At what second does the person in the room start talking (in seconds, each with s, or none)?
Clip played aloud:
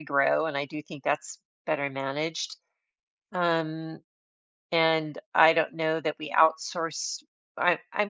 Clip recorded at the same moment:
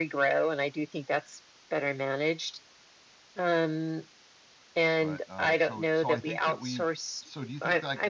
5.0 s